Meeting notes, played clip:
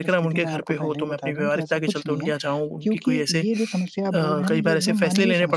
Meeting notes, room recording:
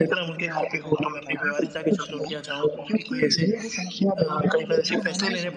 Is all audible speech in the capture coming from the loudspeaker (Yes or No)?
Yes